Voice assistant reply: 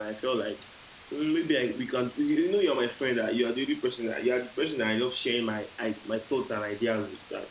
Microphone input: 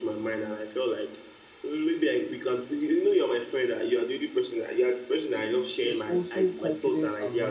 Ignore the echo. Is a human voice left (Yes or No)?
Yes